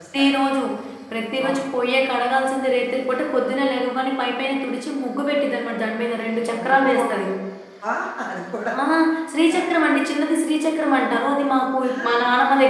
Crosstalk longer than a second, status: none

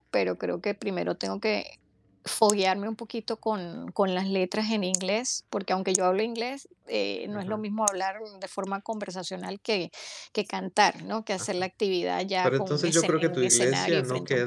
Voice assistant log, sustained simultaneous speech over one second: present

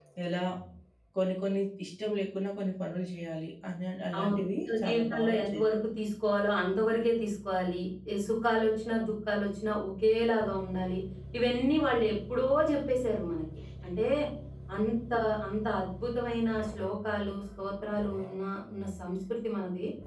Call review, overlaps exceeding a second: present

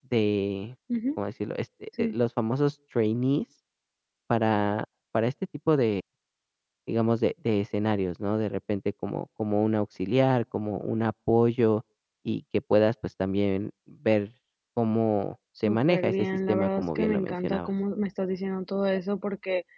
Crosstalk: present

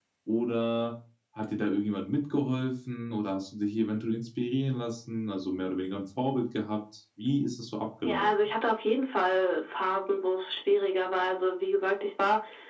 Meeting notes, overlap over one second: none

